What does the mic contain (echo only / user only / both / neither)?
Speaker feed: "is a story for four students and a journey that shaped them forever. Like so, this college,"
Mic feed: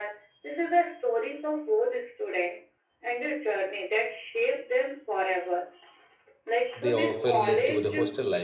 both